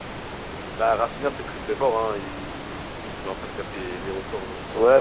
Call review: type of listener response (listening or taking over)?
taking over